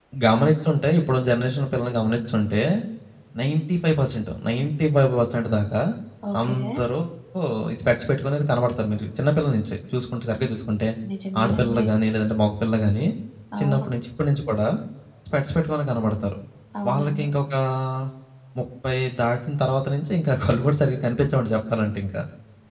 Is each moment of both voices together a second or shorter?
Yes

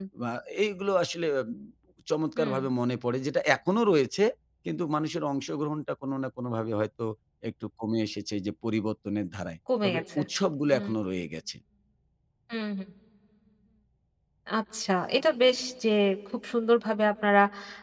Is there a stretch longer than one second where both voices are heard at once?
No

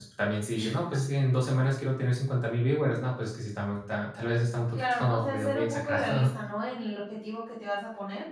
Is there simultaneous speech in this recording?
Yes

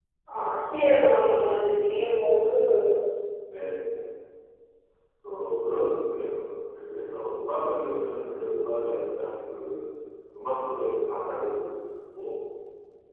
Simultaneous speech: No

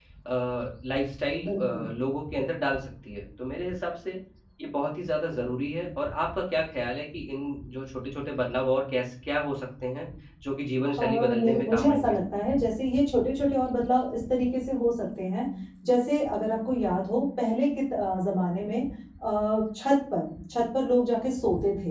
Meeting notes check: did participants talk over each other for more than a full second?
Yes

